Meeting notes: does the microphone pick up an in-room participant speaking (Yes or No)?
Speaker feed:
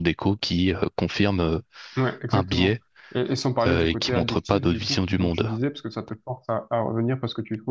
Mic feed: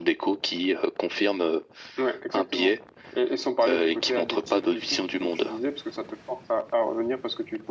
No